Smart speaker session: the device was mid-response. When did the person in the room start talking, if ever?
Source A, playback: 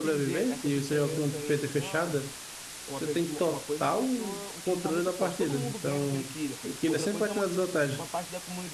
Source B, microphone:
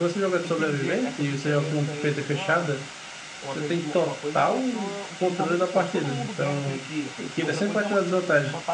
none

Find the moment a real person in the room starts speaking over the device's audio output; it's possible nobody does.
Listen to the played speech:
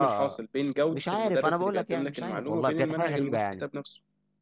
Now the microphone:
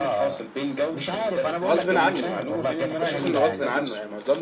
2 s

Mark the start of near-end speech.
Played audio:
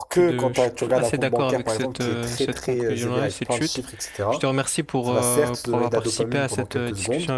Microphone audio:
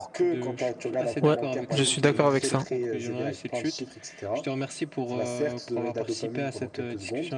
1 s

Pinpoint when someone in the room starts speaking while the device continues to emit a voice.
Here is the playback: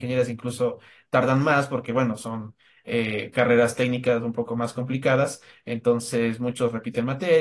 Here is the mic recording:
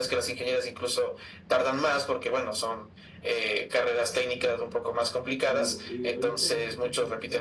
5 s

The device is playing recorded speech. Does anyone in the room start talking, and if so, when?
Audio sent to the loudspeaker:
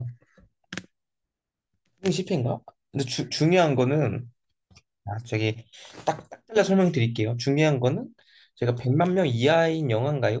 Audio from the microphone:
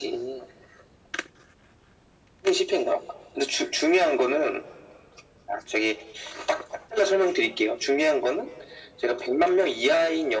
none

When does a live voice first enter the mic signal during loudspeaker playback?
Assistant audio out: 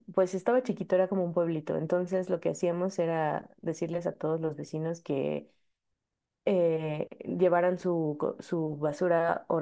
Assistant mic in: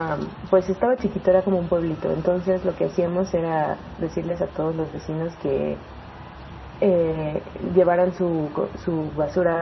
none

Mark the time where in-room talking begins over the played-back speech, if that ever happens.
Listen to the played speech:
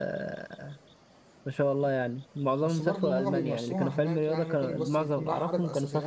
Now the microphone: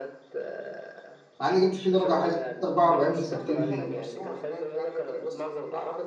1 s

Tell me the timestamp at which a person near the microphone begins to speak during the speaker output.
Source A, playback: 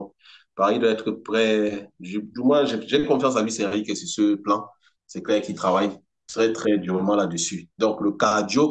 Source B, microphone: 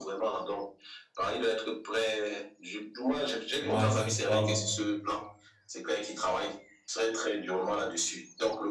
4 s

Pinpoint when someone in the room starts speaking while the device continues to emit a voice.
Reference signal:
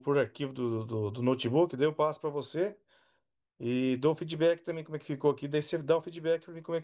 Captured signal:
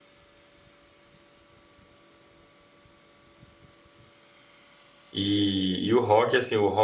5 s

